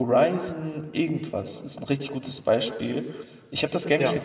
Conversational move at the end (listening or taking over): listening